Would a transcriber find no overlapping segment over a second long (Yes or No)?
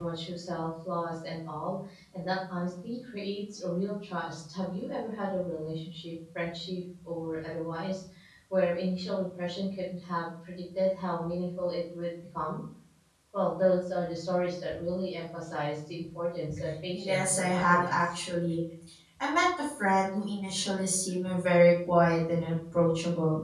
No